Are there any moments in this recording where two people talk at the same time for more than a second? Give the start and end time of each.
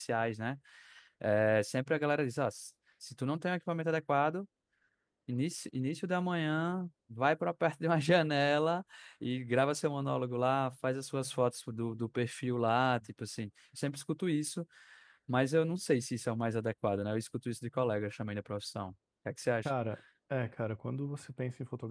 none

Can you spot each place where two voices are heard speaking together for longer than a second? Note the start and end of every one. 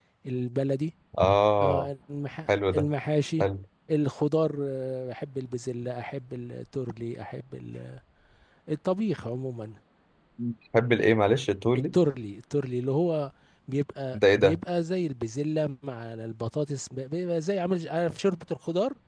none

